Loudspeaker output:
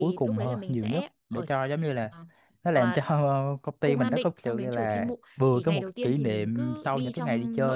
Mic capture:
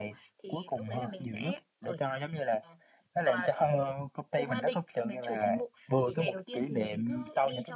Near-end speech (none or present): none